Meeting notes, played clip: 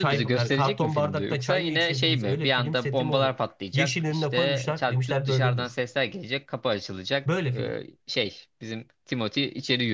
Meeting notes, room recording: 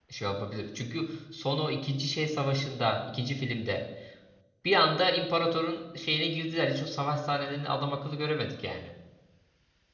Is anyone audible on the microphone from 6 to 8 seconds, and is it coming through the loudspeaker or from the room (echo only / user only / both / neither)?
user only